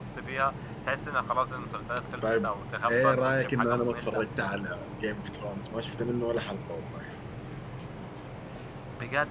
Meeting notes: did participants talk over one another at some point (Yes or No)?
Yes